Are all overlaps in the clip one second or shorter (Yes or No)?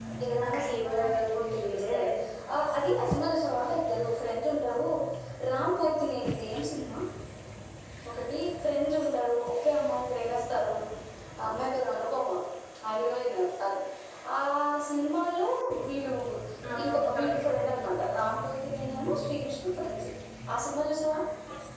No